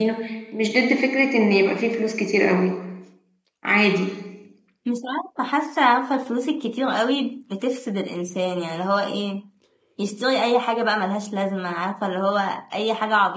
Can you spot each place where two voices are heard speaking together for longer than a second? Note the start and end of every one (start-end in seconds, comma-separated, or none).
none